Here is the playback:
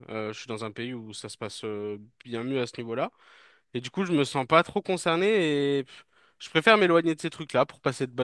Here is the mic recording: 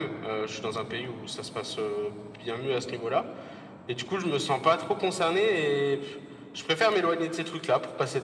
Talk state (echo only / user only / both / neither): echo only